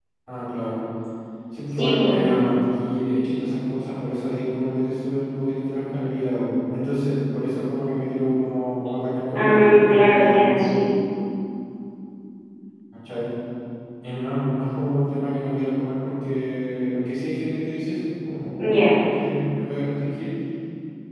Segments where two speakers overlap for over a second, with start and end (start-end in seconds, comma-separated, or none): 9.3-10.7